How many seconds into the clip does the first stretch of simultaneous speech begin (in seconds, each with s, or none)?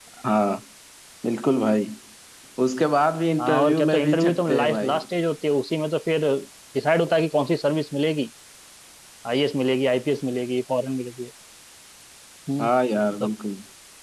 3.4 s